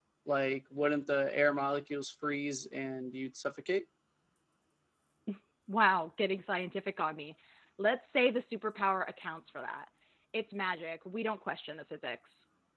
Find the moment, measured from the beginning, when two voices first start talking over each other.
none

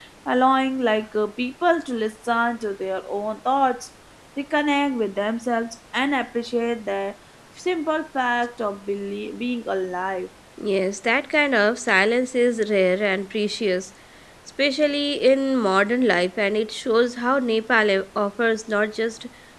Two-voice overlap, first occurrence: none

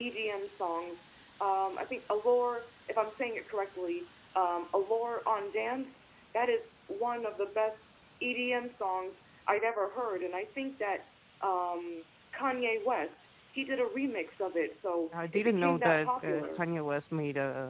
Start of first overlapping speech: 15.1 s

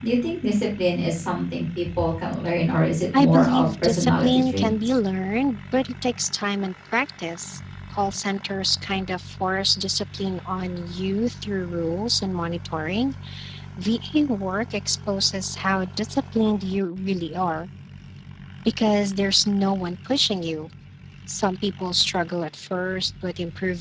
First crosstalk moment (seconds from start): 3.1 s

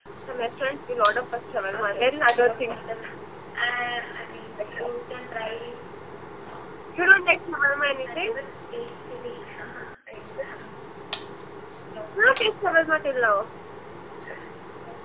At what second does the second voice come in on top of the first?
1.7 s

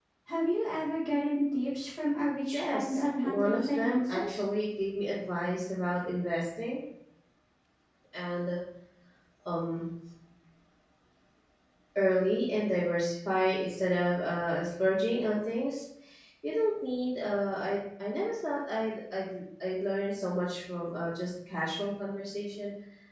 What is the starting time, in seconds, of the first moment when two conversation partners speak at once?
2.5 s

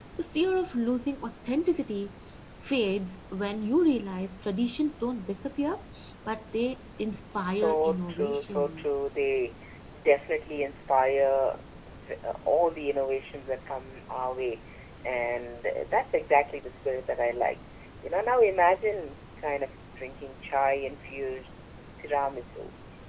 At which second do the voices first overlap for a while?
7.4 s

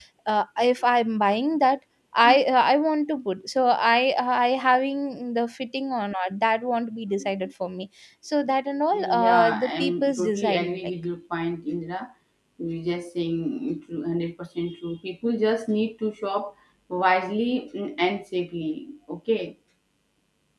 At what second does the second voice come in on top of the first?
8.9 s

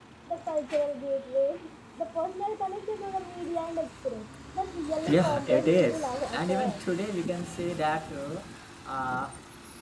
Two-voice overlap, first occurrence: 5.1 s

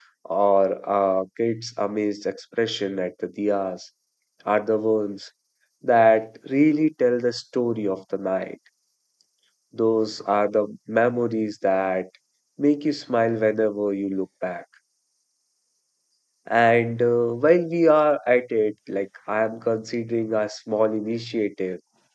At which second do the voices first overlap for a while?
none

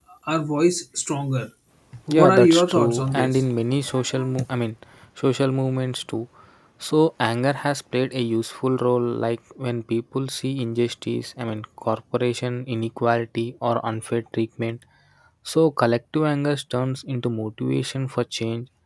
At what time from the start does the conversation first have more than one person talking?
2.1 s

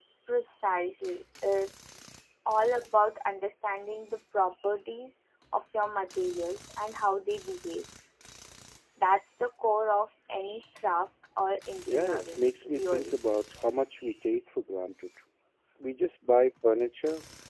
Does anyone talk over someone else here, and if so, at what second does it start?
11.9 s

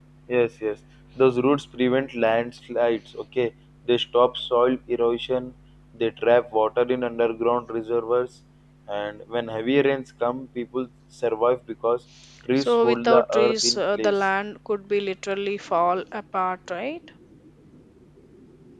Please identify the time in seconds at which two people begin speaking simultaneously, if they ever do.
12.6 s

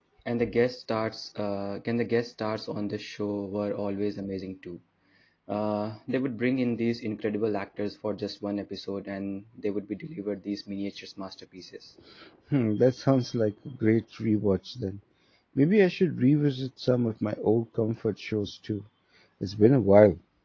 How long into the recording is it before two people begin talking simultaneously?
none

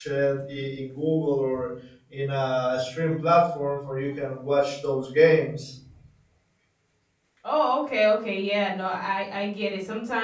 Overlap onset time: none

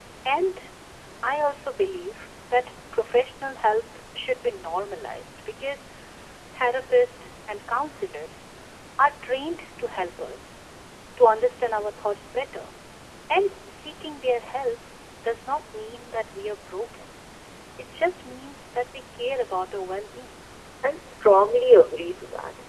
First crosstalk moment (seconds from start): none

